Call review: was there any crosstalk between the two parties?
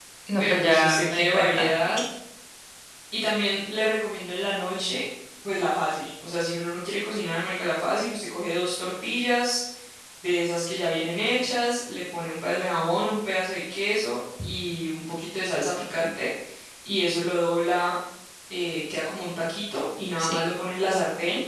Yes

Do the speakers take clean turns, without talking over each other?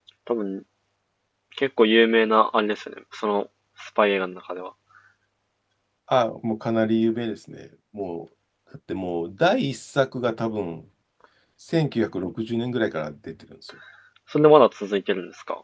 Yes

